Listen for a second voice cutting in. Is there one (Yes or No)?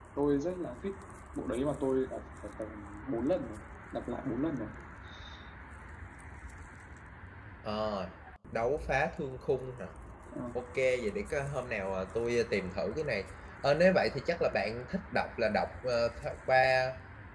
No